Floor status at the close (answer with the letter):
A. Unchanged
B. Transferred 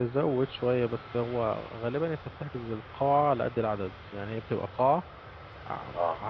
A